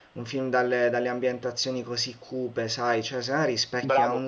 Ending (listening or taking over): listening